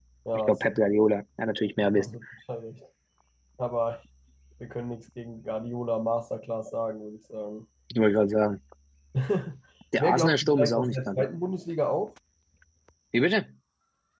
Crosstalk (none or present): present